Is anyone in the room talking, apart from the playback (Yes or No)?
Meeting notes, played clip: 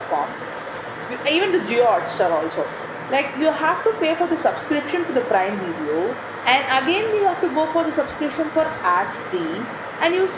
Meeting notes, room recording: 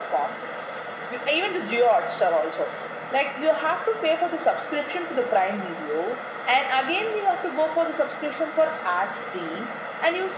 No